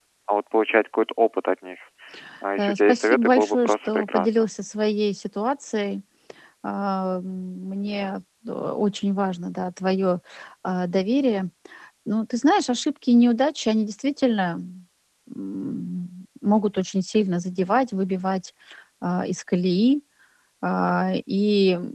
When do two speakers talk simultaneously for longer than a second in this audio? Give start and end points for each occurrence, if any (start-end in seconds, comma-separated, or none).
2.6-4.5